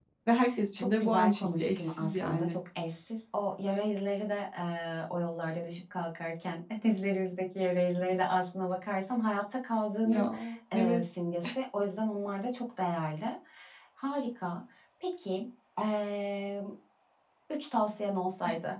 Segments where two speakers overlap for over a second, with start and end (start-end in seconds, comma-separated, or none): 0.8-2.5